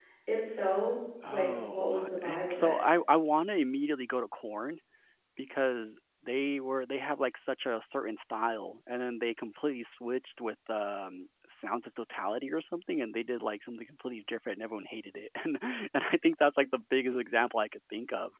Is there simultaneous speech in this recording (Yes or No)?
Yes